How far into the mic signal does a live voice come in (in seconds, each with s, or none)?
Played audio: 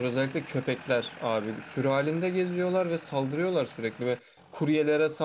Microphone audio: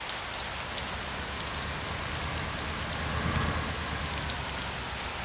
none